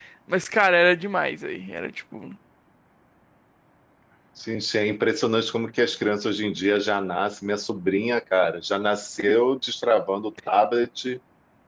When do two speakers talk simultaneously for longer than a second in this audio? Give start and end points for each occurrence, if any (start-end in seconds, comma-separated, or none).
none